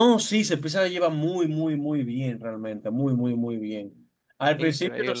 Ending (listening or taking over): listening